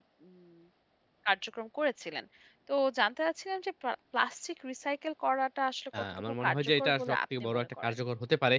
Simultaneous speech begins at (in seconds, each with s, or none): 5.9 s